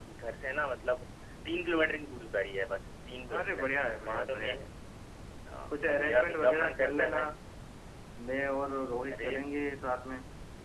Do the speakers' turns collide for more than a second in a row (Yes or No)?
Yes